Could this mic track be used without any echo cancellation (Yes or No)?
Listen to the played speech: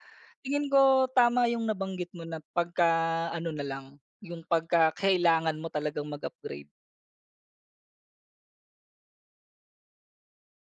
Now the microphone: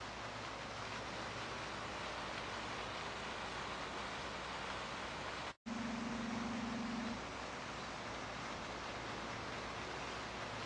Yes